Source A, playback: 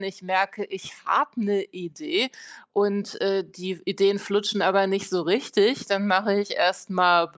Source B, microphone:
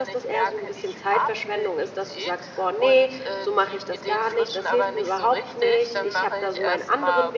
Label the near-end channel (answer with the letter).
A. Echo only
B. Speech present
B